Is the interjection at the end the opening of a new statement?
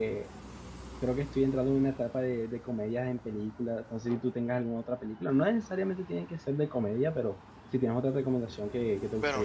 Yes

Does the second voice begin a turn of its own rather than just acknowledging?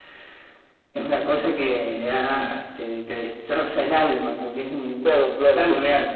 Yes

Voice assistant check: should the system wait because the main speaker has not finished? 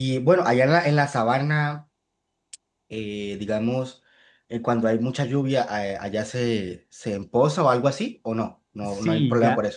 No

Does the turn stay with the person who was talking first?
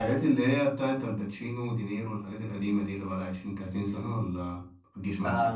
No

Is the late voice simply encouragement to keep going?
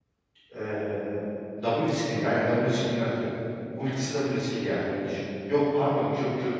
Yes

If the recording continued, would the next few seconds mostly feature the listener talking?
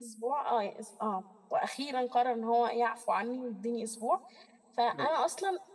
No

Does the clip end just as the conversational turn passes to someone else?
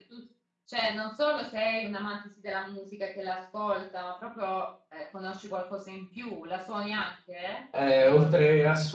Yes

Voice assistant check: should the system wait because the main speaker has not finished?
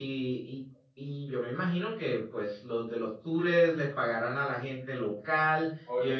No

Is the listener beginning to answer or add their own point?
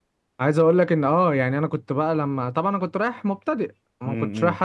No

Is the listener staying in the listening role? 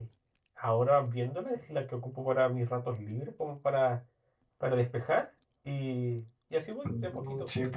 No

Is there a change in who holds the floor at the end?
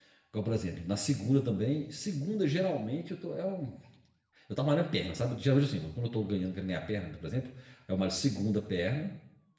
No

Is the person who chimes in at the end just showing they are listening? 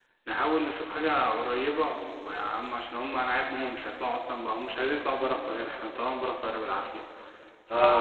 No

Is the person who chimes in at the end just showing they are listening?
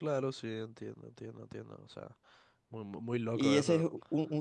No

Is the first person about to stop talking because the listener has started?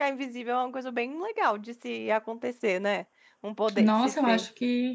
Yes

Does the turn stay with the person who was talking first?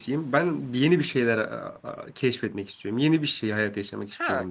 No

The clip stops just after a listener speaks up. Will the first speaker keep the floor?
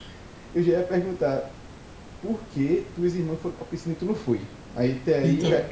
Yes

